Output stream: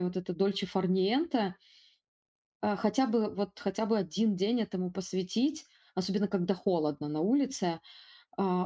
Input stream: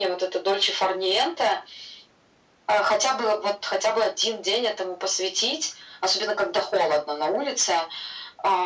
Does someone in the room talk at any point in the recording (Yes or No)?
No